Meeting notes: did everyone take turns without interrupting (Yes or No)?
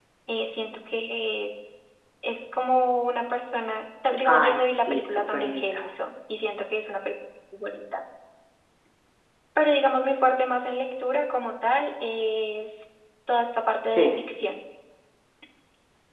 No